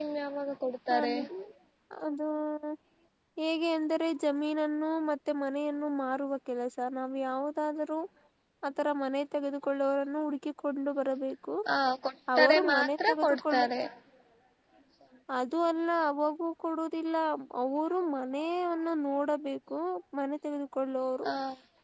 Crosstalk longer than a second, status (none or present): present